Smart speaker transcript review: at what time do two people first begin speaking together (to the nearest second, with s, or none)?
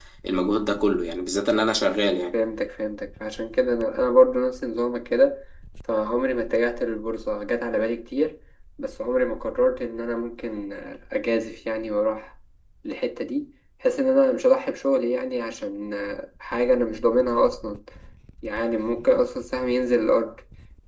none